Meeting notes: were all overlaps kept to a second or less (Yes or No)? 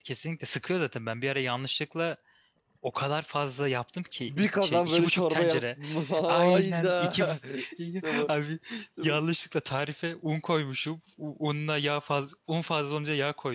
No